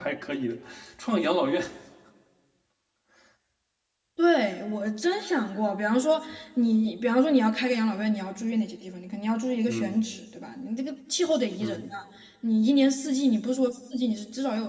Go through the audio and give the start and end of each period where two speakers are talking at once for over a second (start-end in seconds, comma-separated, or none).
none